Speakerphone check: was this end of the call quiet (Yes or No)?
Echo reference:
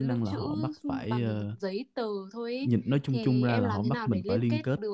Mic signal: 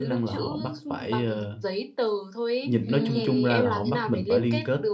No